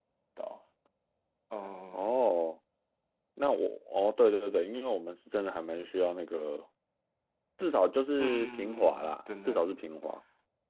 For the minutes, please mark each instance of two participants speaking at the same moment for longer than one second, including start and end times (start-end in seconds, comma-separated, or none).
8.2-9.8